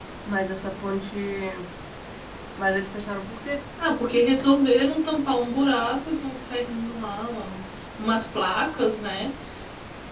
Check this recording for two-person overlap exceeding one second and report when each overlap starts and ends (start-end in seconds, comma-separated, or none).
none